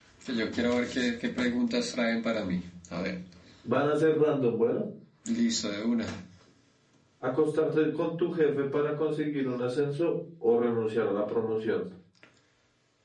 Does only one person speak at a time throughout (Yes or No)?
Yes